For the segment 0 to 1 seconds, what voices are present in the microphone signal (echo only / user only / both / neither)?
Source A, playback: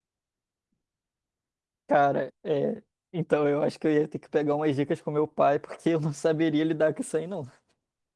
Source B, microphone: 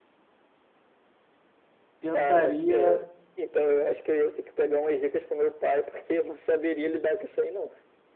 neither